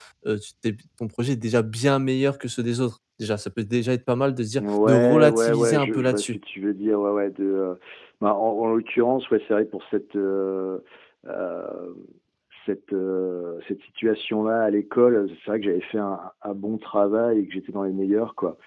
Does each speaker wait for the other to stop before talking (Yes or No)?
No